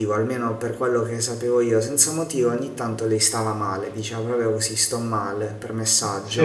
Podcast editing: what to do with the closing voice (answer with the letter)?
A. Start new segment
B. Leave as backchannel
B